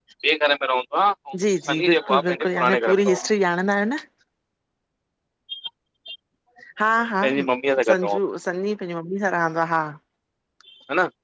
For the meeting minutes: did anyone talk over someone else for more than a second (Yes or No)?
Yes